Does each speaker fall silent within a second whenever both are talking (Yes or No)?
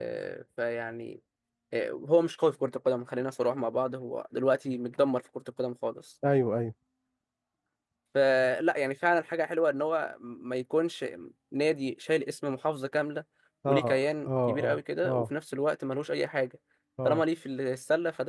No